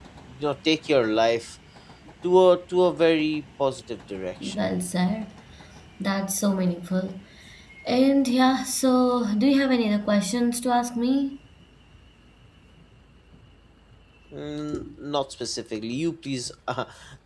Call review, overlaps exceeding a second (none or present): none